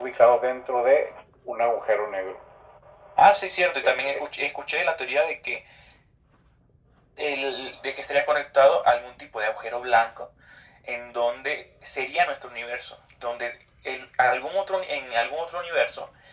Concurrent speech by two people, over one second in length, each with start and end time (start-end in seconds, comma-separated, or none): none